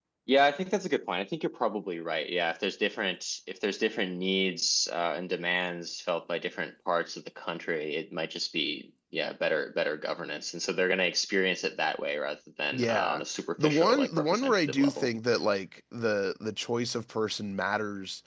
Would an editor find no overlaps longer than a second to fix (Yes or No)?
No